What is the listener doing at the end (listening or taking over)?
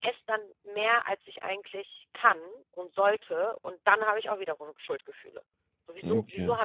listening